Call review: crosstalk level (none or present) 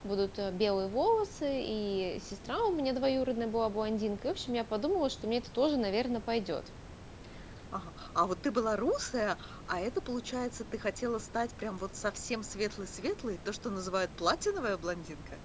none